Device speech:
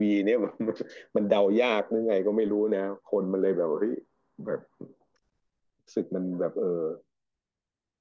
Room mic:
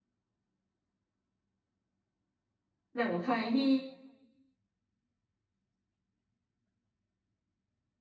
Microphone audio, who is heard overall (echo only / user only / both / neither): user only